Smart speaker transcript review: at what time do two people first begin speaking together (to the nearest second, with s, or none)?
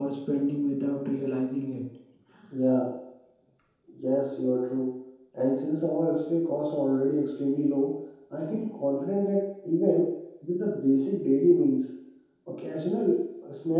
none